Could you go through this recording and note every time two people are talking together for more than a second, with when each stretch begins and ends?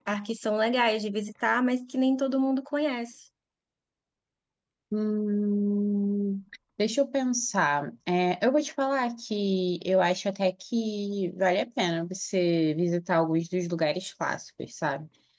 none

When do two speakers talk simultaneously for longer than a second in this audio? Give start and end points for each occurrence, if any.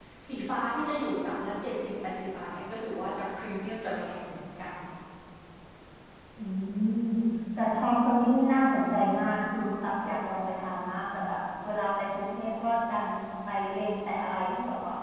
none

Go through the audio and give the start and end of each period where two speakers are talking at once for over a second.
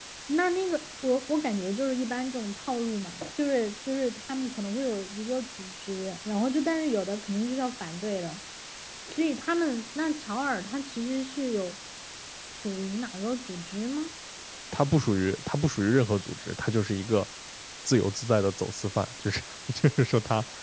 none

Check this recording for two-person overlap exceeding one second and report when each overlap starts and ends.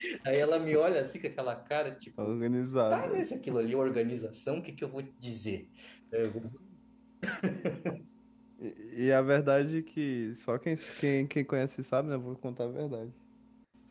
none

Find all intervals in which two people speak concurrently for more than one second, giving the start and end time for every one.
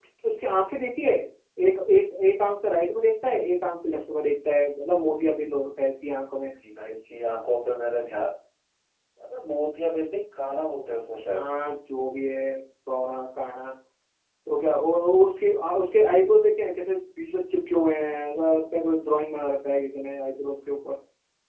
none

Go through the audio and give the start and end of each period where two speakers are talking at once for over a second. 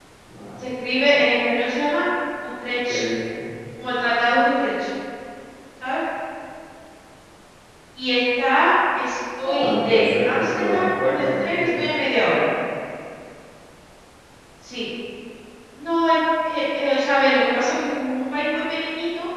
9.4-11.8

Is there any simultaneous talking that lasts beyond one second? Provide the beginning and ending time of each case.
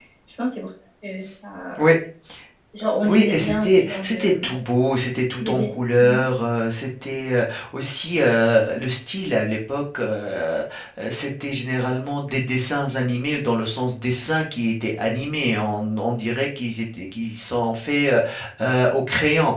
3.0-4.5

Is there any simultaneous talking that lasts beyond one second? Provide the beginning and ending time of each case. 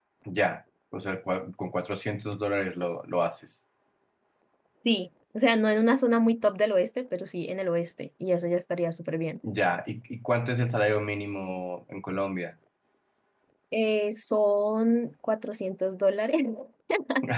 none

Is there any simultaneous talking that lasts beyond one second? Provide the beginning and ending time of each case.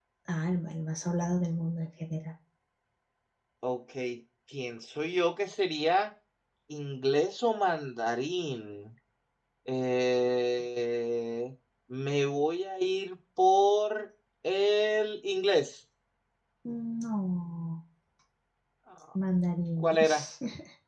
none

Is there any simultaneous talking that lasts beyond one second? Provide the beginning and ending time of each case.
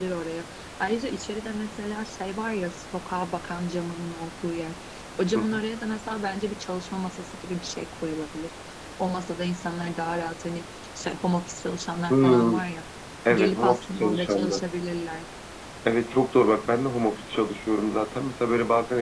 13.3-14.6

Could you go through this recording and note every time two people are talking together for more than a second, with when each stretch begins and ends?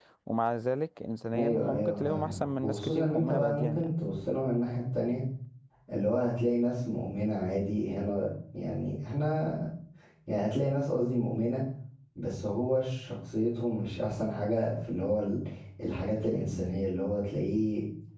1.4-3.9

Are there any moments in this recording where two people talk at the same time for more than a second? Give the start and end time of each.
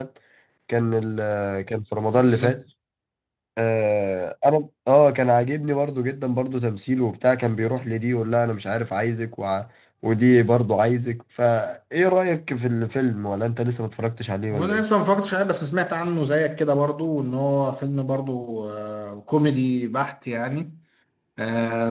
none

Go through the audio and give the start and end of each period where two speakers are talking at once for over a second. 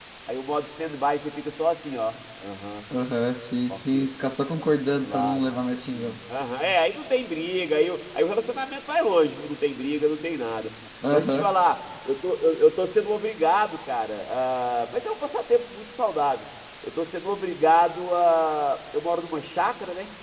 none

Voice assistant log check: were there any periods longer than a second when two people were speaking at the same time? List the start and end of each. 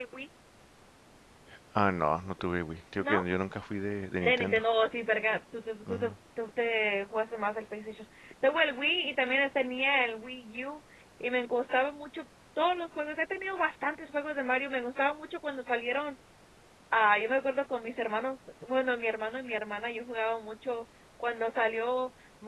none

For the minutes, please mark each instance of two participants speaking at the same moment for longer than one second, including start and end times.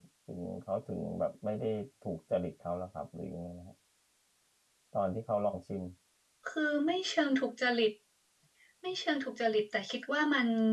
none

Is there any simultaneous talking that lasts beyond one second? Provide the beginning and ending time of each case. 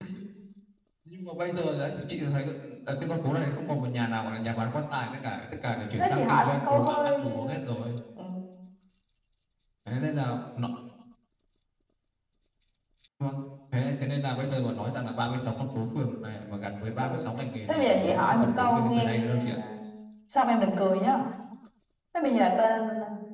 6.0-7.3, 17.7-19.5

